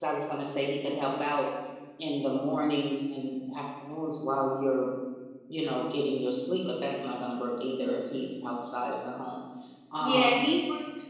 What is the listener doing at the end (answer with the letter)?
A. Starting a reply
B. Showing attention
A